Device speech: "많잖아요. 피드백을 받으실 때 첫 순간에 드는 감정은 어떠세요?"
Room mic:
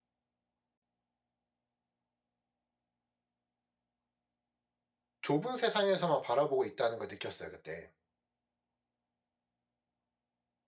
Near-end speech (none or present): present